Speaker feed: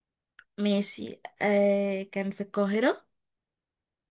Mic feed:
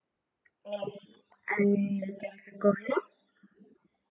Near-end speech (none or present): none